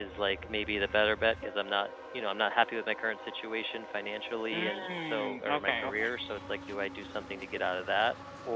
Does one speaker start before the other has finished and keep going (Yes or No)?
Yes